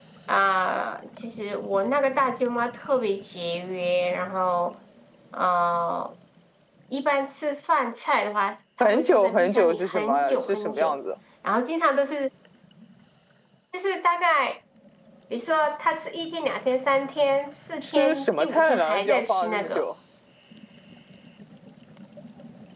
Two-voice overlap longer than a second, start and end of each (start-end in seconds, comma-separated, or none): 8.8-11.0, 17.8-19.8